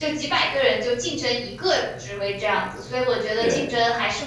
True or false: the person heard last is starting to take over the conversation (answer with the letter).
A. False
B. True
A